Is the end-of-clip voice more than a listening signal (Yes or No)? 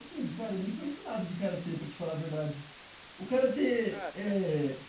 No